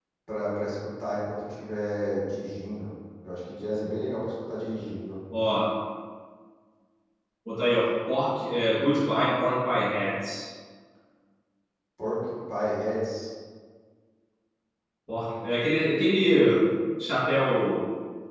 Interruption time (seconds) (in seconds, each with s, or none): none